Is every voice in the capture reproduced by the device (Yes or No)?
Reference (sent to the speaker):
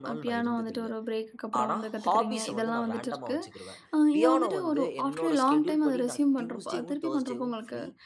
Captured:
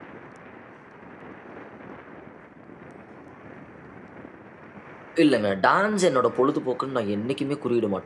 No